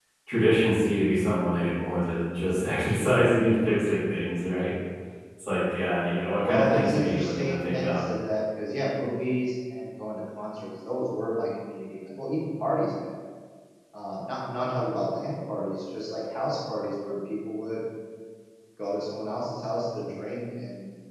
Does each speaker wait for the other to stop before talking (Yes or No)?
No